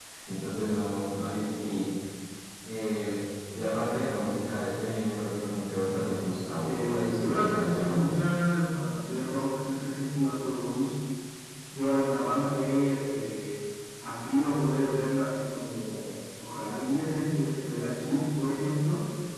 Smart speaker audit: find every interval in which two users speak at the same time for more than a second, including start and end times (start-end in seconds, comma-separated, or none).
6.6-8.1